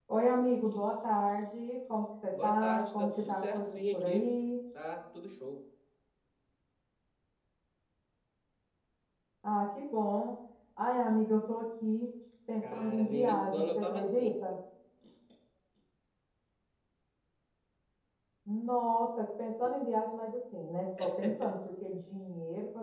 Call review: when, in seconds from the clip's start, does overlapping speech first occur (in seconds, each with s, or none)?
2.4 s